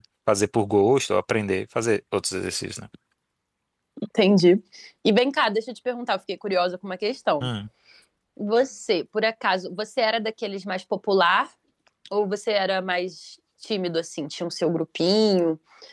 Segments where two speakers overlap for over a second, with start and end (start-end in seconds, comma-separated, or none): none